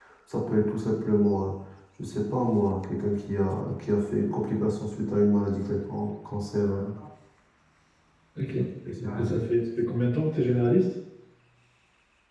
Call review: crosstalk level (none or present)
none